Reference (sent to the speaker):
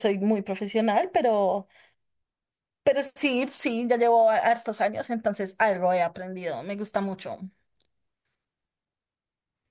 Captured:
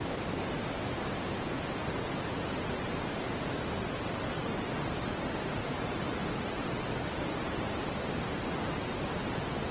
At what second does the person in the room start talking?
none

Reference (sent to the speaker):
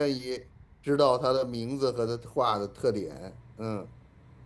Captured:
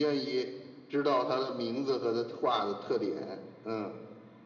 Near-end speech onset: none

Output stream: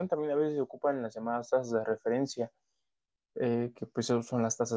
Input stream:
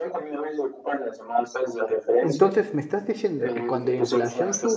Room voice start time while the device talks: 2.2 s

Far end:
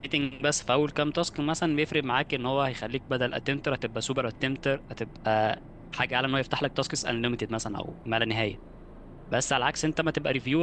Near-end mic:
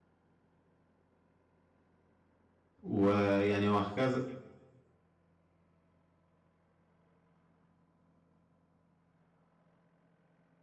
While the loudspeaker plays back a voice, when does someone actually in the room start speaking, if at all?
2.8 s

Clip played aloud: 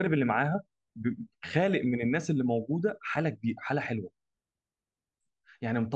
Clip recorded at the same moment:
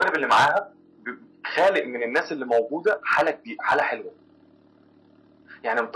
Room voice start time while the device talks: none

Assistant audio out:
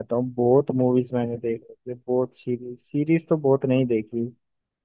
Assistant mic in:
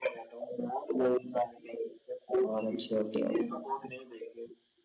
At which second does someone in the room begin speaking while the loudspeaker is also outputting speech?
2.4 s

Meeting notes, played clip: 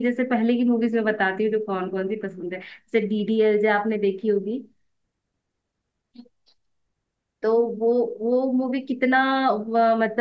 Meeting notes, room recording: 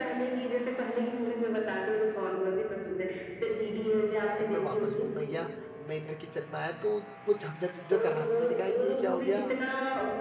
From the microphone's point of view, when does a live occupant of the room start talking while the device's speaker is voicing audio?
4.4 s

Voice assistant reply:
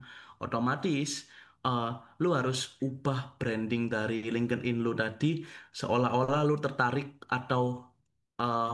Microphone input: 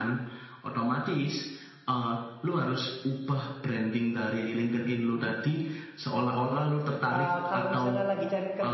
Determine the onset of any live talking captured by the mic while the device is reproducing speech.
7.1 s

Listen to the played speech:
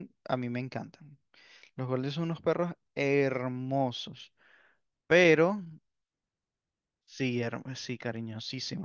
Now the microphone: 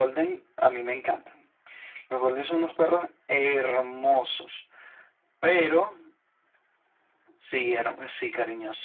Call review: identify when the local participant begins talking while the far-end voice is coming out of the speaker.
none

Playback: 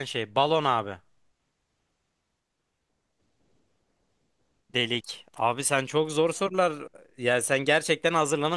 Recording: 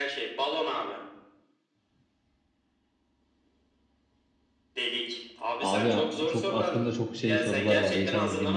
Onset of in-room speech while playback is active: 5.6 s

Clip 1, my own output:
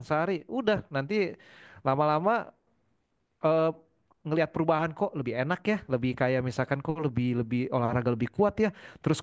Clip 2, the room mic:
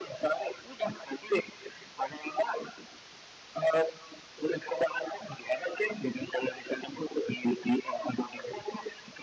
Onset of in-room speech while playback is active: none

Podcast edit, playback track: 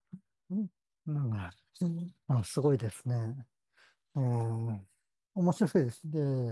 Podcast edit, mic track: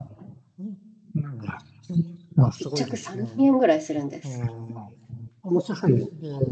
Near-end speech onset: 2.6 s

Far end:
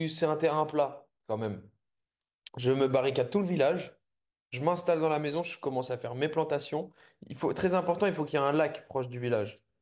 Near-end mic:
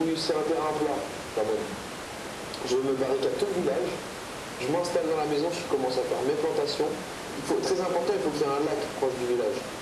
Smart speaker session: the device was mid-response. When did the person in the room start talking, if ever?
none

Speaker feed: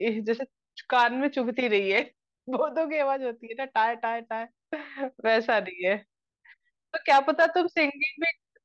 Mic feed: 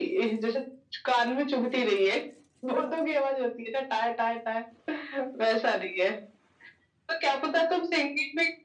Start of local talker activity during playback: none

